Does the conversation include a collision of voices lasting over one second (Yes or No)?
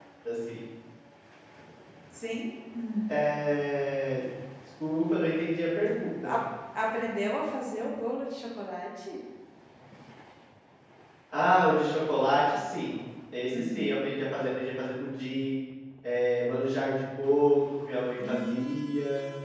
No